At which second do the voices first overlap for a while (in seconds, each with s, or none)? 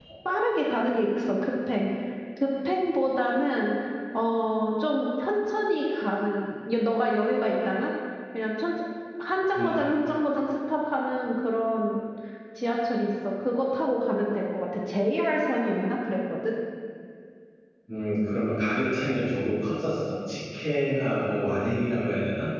none